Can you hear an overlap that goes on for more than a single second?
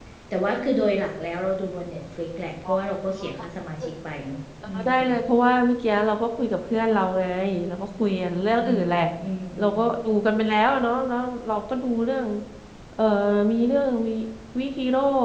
No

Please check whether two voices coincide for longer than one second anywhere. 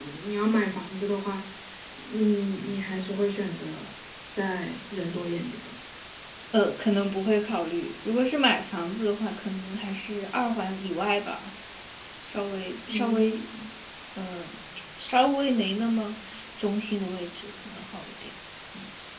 No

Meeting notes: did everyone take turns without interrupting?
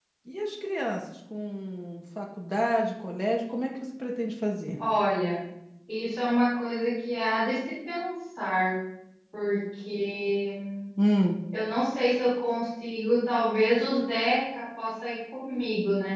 Yes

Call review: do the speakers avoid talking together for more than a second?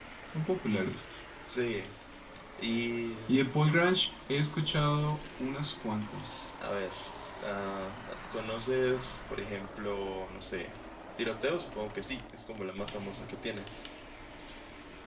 Yes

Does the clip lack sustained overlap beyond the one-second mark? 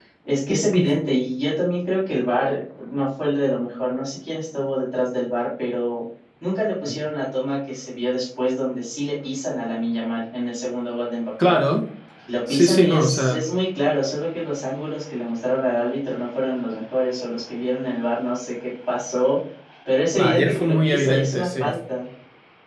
No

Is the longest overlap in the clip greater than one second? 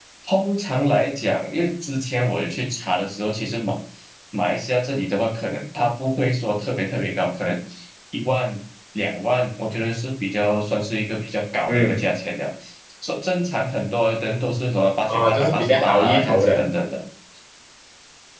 Yes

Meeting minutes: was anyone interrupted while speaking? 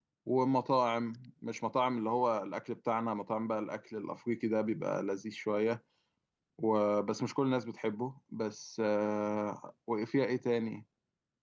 No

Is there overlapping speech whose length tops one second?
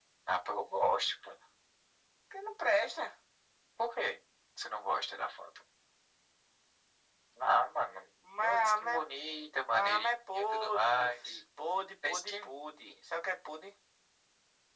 Yes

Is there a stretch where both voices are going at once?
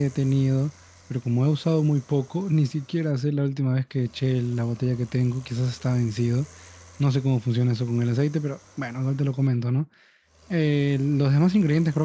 No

